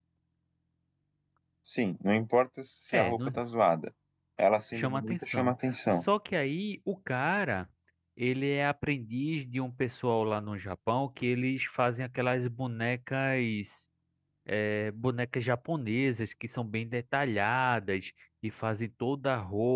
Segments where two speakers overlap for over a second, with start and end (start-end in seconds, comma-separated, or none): 4.7-6.0